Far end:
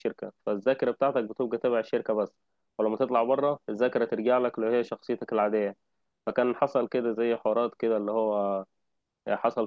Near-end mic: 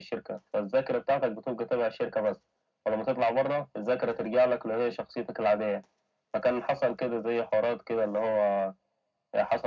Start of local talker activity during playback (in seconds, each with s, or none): none